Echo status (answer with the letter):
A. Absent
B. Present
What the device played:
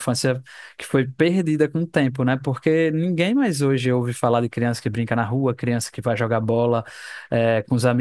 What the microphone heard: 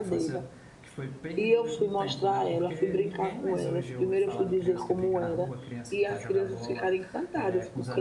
B